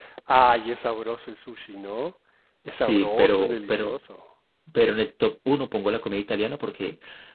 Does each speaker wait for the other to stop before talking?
No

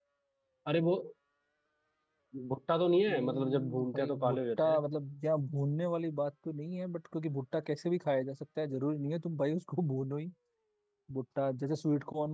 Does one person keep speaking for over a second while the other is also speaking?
Yes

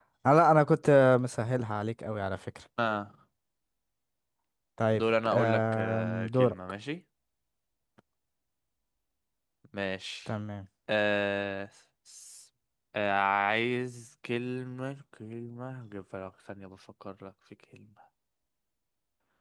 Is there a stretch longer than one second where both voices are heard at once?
Yes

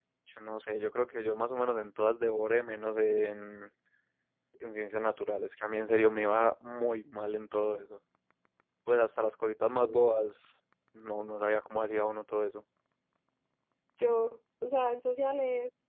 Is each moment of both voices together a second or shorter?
Yes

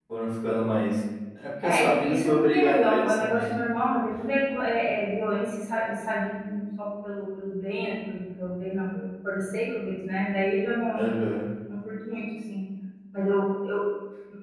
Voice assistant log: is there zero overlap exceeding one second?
No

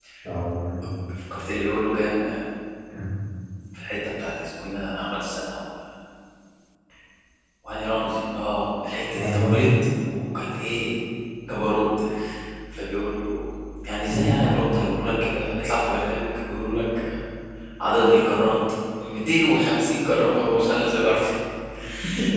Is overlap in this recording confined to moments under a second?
Yes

